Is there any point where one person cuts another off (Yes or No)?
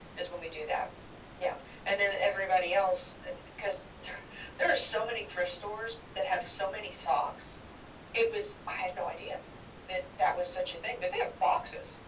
No